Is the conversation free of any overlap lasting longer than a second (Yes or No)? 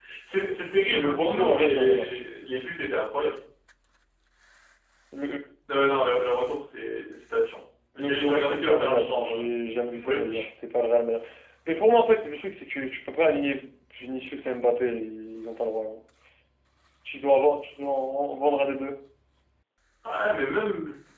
No